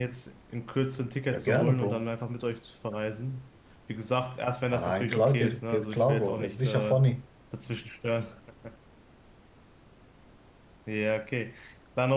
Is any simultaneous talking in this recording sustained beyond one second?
Yes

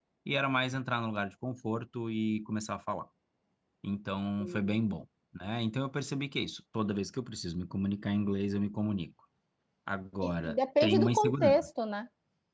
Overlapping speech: Yes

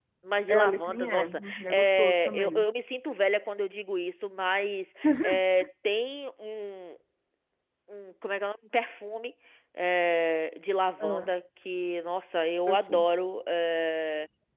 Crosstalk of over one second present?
Yes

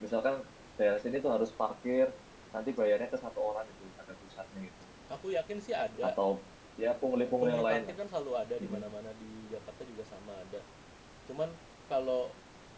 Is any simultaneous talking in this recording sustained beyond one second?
No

